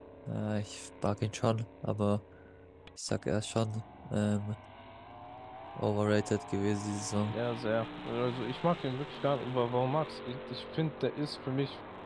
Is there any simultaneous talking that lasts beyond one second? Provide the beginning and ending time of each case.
none

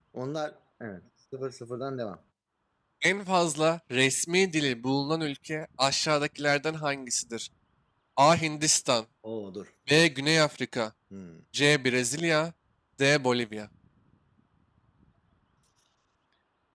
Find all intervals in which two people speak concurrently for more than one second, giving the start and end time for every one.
none

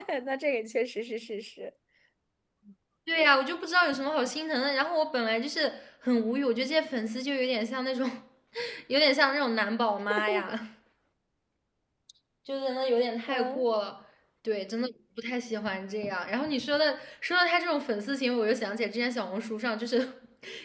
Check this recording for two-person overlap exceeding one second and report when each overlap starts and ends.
none

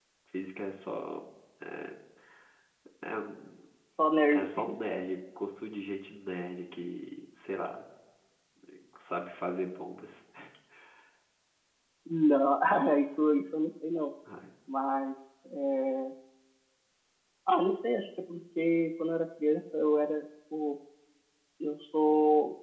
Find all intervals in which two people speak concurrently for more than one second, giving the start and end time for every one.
none

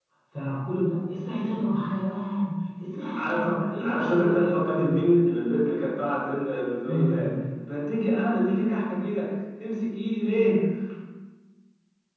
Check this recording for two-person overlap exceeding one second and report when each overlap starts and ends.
3.2-4.9

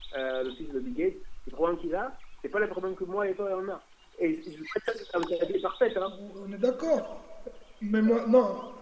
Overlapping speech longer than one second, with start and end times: none

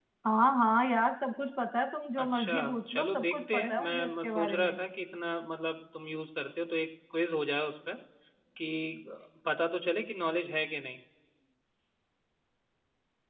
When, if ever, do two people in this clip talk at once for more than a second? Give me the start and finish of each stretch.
2.2-4.8

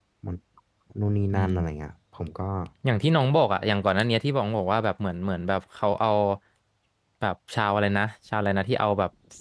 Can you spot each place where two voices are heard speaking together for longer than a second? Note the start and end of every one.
none

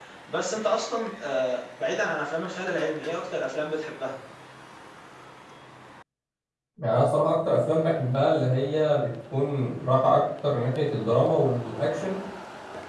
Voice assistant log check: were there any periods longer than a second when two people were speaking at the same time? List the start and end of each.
none

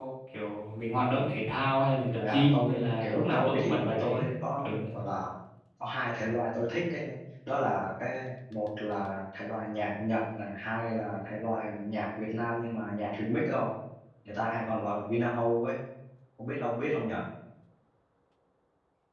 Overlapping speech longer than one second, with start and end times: 2.2-4.2

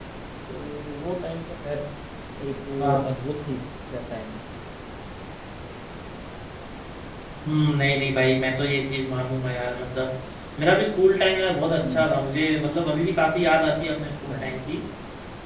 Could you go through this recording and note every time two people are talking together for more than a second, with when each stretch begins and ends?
none

